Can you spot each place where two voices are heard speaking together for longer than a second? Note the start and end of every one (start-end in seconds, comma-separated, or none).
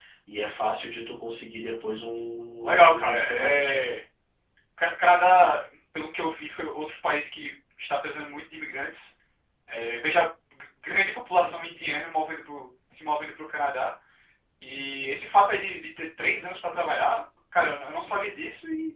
2.6-3.8